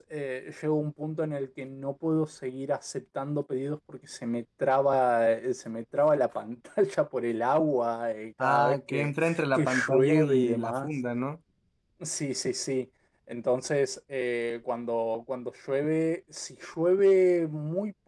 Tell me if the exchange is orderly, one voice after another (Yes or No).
No